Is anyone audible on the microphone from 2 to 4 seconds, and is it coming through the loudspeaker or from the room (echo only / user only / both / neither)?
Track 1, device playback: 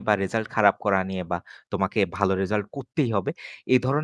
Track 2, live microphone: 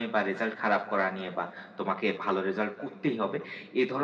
echo only